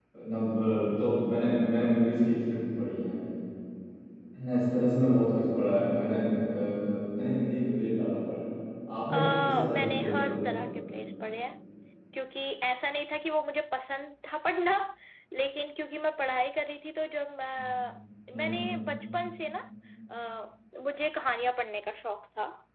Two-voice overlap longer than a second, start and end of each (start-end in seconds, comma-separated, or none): 9.1-10.5